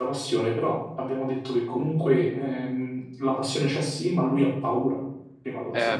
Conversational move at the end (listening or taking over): taking over